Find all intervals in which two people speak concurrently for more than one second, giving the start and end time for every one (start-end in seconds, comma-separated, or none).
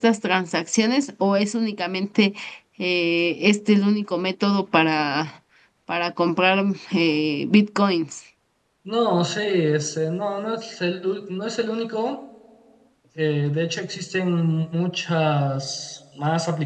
none